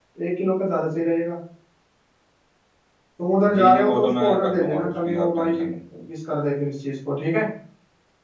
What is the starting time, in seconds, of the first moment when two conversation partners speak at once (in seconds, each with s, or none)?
3.5 s